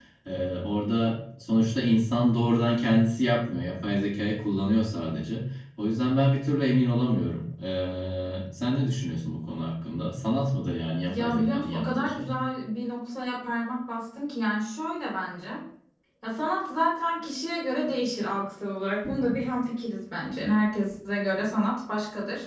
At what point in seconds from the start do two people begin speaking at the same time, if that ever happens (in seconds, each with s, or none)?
11.1 s